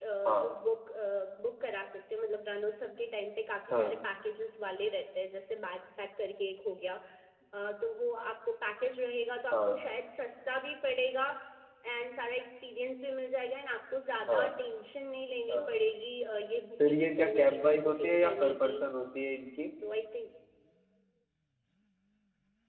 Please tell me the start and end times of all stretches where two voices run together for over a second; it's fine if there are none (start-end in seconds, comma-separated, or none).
16.9-18.8